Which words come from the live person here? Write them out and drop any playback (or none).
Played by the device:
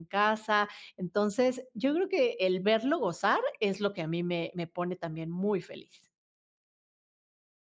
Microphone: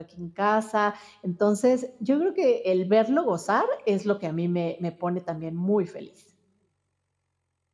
none